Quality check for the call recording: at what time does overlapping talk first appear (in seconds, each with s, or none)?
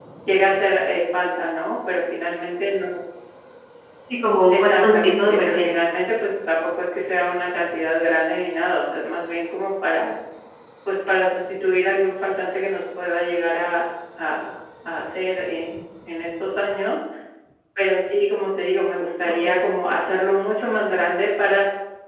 4.5 s